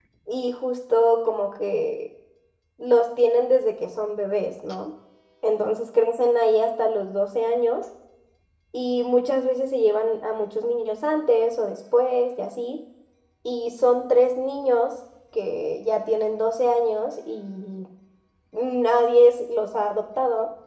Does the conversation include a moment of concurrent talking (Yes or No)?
No